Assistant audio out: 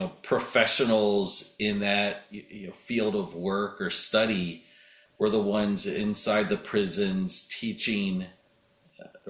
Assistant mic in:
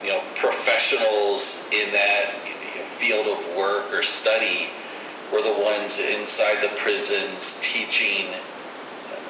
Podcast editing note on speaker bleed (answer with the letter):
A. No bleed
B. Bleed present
B